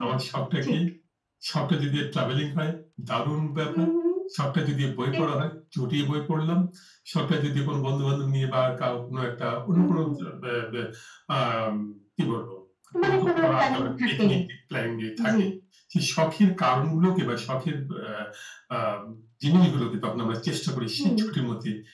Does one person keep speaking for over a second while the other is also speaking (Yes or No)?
Yes